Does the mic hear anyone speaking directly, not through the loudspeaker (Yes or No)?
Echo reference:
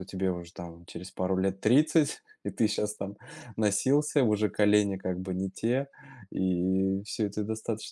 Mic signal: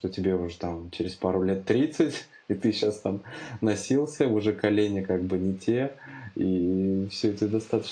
No